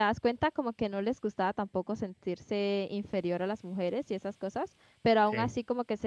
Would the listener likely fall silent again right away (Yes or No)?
Yes